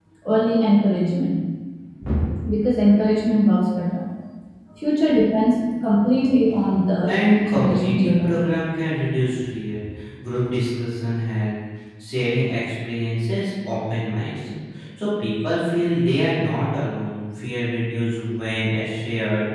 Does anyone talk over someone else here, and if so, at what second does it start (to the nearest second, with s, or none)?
7 s